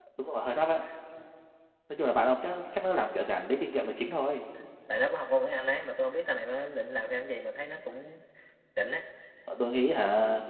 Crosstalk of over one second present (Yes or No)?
No